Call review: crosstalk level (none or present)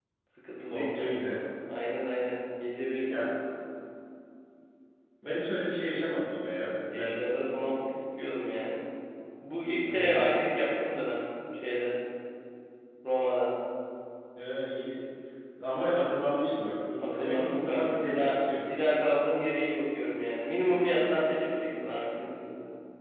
present